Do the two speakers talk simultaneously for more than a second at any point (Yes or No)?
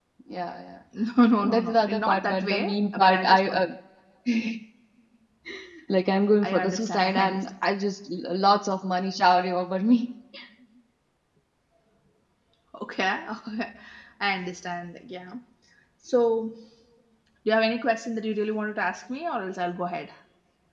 Yes